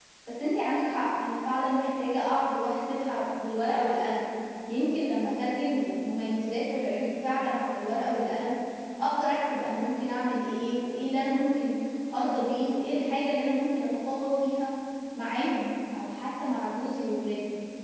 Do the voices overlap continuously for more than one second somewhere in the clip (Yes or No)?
No